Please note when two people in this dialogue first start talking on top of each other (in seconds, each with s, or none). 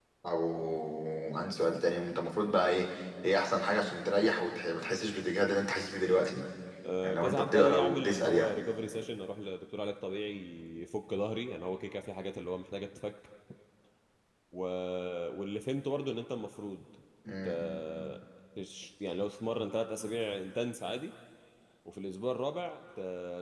7.0 s